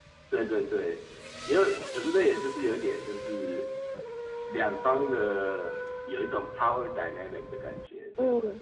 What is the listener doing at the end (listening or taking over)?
taking over